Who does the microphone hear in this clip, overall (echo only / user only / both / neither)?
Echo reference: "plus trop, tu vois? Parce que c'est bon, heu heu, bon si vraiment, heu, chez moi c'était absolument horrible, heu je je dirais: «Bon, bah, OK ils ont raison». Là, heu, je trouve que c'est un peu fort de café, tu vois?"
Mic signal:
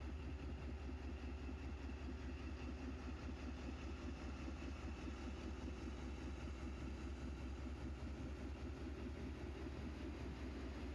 neither